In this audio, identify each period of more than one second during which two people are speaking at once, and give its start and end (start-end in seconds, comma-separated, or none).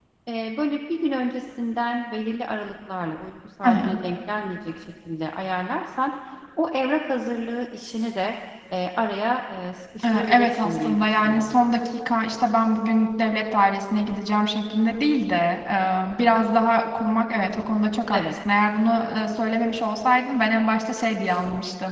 10.0-11.5